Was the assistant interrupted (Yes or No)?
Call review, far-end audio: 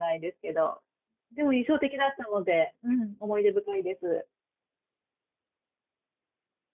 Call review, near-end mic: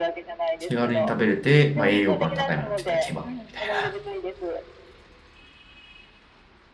Yes